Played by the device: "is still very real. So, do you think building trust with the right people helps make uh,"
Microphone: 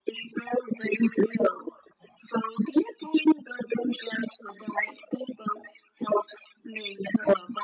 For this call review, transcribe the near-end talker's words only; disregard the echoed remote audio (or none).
none